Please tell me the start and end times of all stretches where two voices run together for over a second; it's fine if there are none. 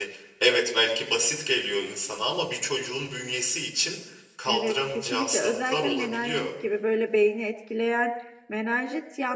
4.5-6.5

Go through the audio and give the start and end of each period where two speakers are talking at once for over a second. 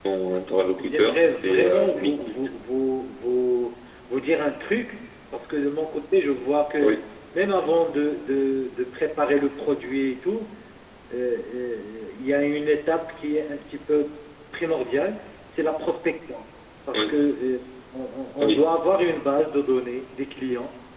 0.8-2.3

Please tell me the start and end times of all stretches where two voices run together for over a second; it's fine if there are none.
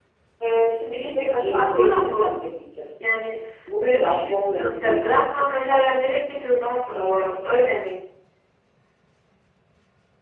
0.9-2.4, 3.8-5.5

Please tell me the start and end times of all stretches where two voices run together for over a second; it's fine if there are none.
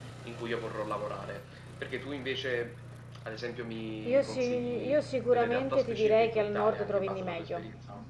4.0-7.6

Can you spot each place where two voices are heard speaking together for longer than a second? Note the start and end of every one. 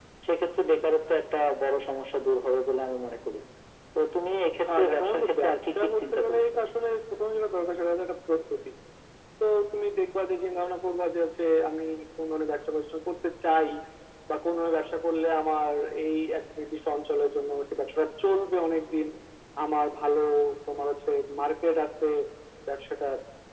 4.8-6.4

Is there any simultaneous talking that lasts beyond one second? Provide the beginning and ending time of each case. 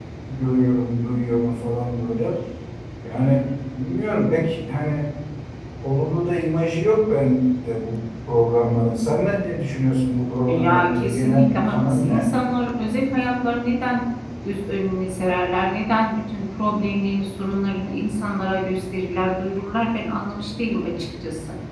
10.5-12.2

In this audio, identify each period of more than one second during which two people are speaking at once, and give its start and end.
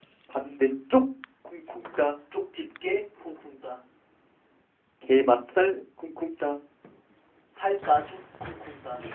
none

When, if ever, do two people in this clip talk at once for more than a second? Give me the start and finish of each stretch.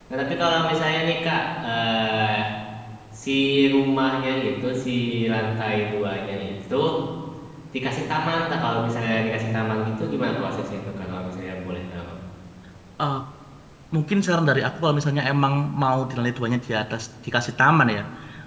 none

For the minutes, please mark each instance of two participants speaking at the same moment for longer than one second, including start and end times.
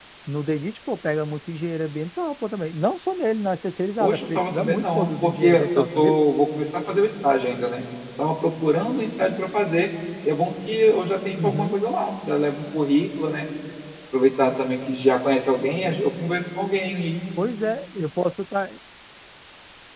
4.0-6.2

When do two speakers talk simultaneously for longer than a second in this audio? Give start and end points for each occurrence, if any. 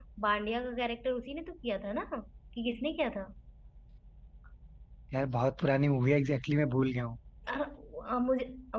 none

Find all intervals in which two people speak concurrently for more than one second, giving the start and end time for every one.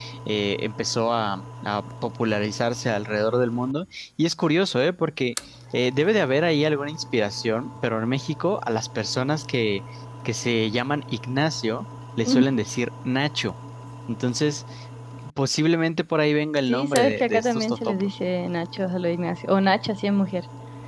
16.7-18.2

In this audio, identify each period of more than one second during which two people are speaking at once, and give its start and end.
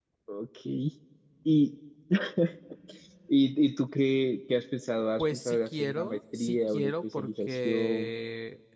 5.2-8.1

